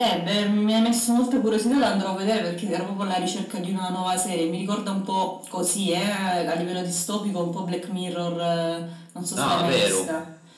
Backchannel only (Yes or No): No